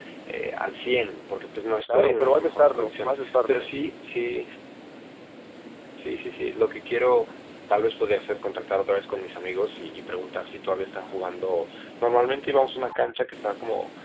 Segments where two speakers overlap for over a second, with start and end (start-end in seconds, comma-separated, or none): 1.9-3.7